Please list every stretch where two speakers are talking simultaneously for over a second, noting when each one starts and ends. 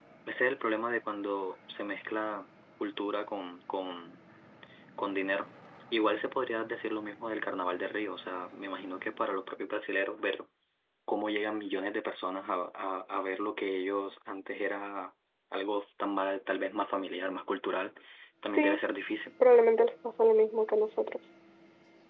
none

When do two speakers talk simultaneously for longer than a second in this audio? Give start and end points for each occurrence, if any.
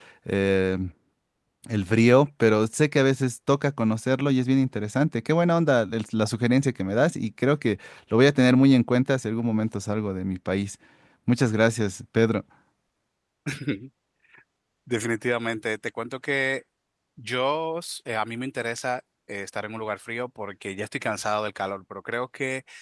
none

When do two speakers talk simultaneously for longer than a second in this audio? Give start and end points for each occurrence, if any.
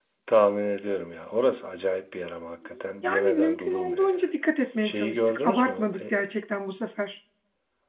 3.0-4.3, 4.8-6.1

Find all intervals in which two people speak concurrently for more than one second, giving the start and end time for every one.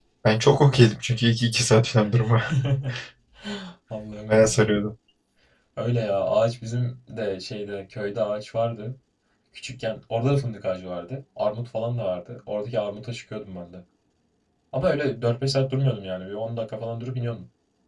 none

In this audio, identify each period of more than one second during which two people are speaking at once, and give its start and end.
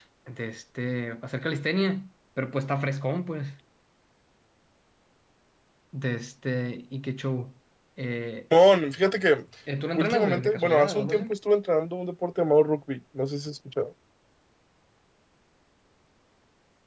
10.0-11.3

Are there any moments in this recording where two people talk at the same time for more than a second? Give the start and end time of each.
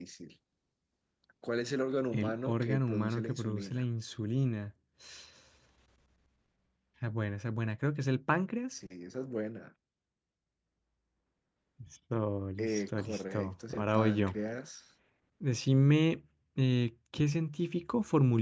2.1-3.9, 12.6-14.3

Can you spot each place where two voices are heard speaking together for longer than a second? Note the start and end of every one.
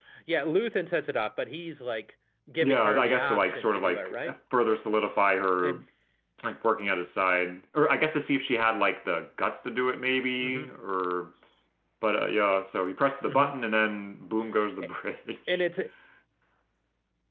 2.6-4.1

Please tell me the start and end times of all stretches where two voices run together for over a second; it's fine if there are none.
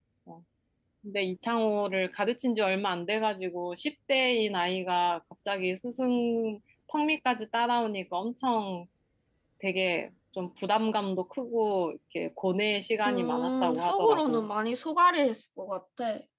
13.1-14.5

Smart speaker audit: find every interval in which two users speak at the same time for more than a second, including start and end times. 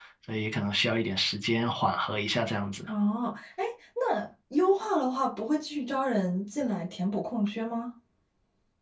none

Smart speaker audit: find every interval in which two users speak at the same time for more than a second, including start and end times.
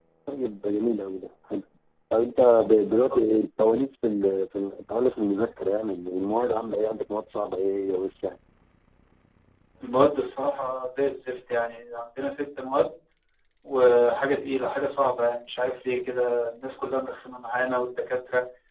none

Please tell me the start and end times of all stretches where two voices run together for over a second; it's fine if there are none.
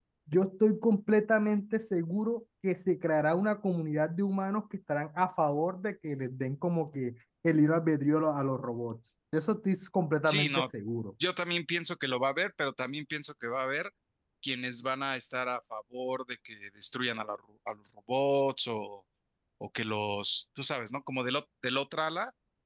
none

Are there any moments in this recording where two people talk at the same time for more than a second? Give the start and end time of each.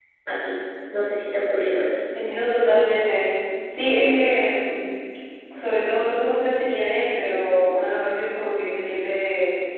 none

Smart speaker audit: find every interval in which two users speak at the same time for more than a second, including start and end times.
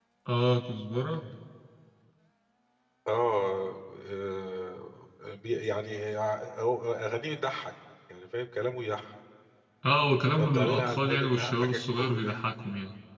10.4-12.3

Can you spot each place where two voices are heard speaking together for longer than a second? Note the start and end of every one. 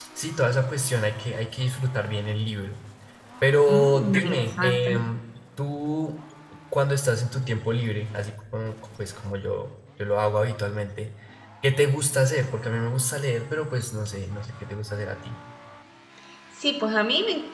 3.7-4.9

